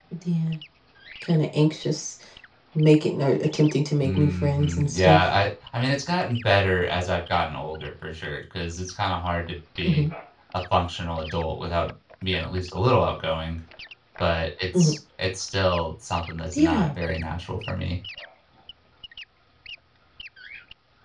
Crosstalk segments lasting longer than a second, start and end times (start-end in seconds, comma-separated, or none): 4.0-5.2